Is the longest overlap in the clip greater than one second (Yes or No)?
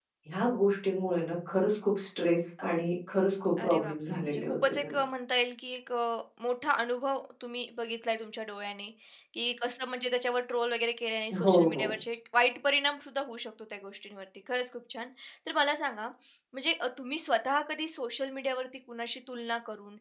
Yes